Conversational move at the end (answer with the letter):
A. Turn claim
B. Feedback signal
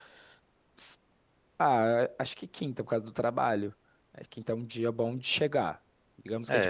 A